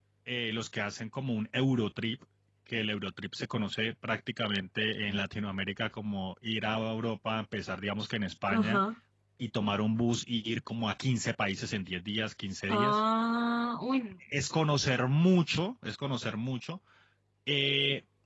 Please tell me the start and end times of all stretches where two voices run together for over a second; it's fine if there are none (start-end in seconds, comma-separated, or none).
none